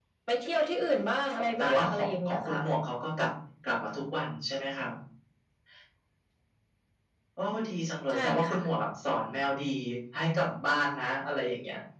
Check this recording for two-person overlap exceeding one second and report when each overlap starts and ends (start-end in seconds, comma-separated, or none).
1.4-2.6